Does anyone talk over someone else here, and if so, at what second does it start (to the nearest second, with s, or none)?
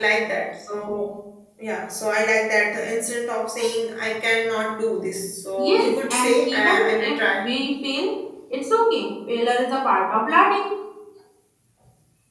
6 s